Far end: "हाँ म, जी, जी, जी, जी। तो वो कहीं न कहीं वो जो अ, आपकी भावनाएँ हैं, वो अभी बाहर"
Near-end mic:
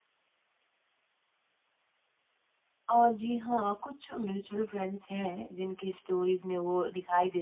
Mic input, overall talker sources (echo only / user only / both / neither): user only